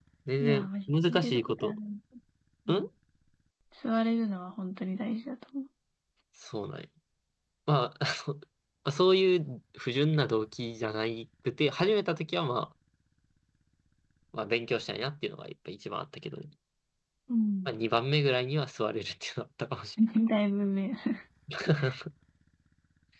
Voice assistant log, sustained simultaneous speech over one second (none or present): present